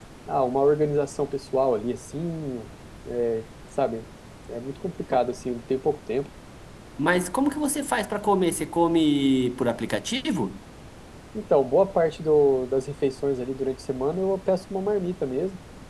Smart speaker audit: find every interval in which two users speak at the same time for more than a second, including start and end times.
none

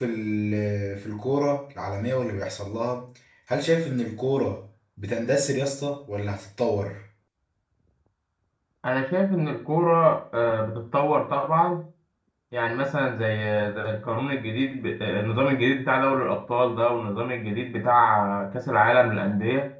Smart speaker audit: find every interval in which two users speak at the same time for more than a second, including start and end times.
none

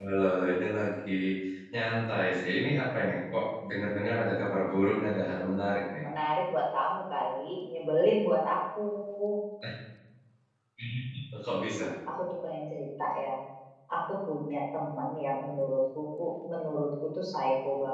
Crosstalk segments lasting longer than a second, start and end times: none

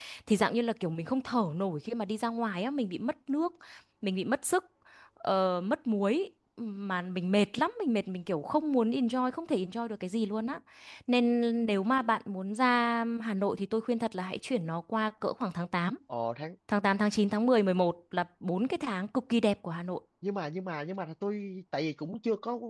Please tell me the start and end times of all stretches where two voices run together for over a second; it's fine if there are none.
none

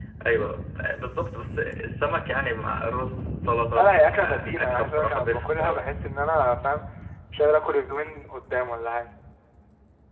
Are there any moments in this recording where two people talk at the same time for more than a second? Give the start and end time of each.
3.8-5.8

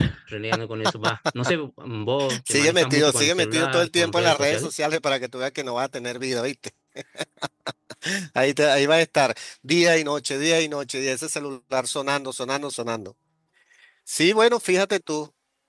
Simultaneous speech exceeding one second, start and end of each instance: 2.5-4.7

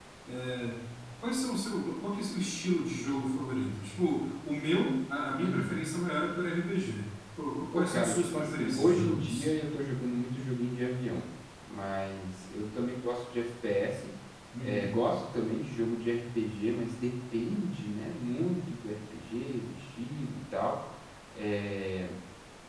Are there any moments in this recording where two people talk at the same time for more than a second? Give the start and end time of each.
7.7-9.5

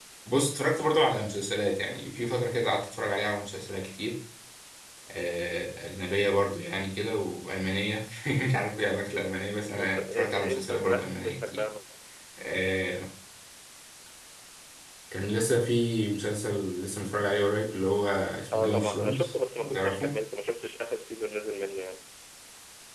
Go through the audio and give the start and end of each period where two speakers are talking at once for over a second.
9.8-11.6, 18.5-20.1

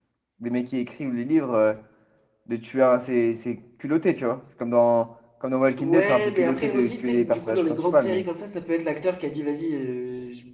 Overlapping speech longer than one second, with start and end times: 5.8-8.2

